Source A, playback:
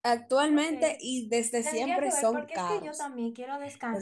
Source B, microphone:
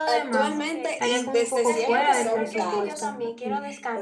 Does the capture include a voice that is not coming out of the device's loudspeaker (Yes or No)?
Yes